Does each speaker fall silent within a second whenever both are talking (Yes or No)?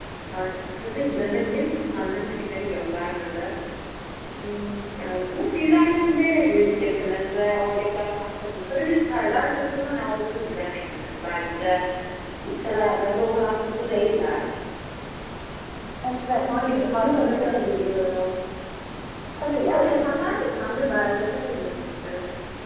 No